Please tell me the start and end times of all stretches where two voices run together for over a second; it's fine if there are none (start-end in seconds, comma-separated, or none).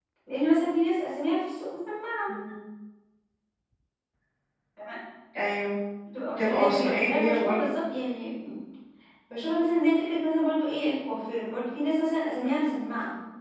6.4-7.6